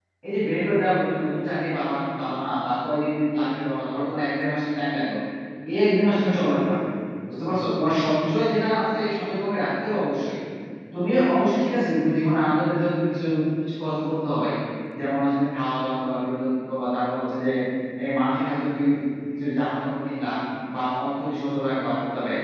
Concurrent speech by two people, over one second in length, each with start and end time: none

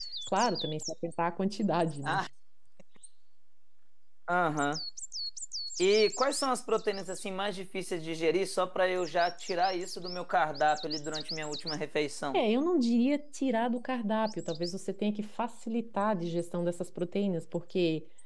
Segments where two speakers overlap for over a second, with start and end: none

